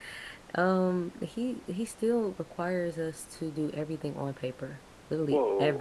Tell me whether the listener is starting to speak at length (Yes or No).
Yes